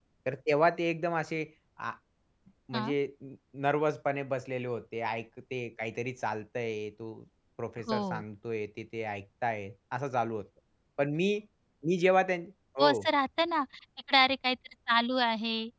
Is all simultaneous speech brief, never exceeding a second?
Yes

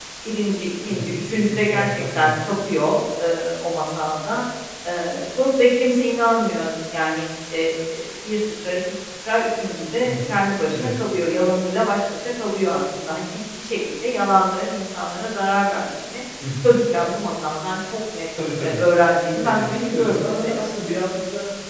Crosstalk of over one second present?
Yes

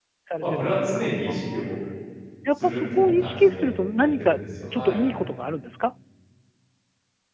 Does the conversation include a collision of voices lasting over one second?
Yes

